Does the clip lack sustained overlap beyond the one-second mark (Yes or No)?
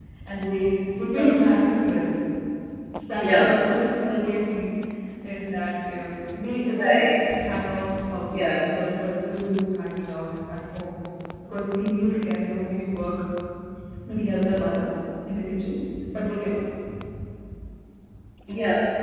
Yes